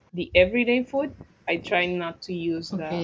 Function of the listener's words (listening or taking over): taking over